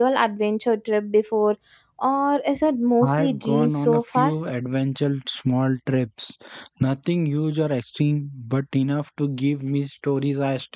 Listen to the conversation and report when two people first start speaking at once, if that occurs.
3 s

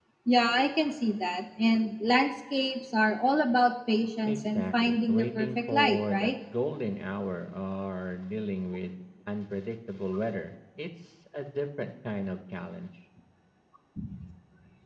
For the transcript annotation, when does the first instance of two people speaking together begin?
4 s

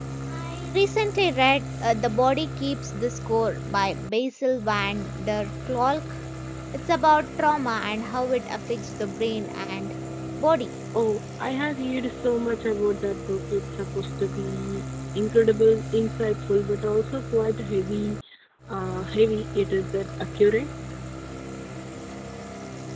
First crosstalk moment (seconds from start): none

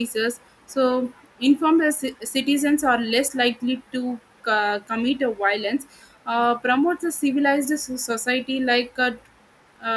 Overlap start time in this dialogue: none

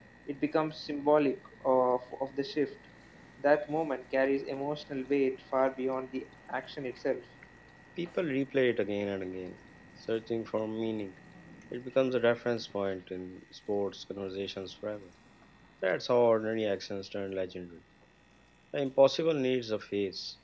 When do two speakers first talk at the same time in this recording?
none

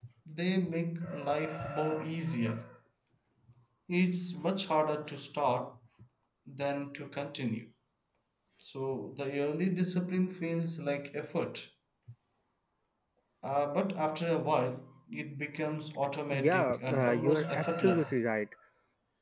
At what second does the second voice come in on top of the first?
16 s

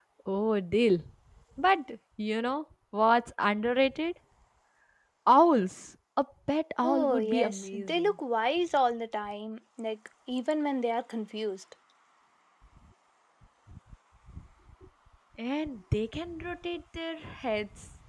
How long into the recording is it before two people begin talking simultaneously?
7 s

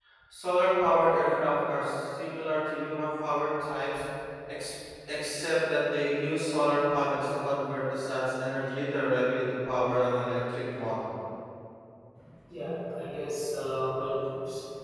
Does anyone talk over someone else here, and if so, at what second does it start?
none

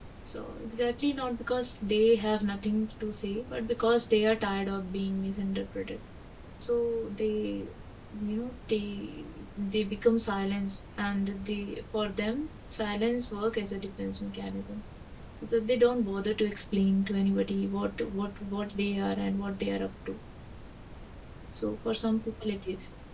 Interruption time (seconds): none

